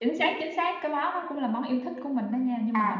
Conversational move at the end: taking over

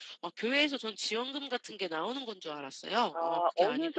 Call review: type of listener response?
taking over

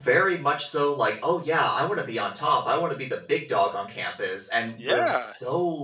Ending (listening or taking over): listening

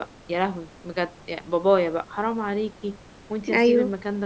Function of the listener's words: listening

